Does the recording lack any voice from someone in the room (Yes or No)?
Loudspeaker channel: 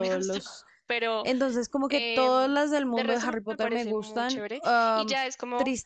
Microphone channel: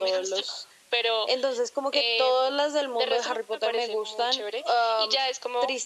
Yes